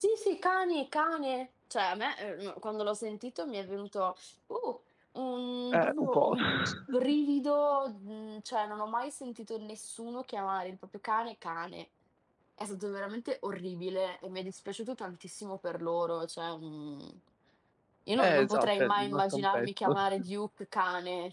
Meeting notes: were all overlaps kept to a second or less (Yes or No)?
No